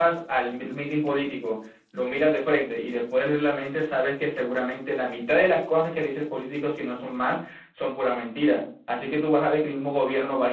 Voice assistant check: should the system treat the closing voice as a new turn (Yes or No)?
No